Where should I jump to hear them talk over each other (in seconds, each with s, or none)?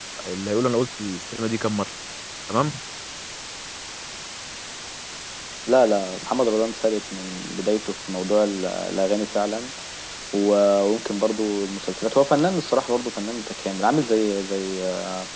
none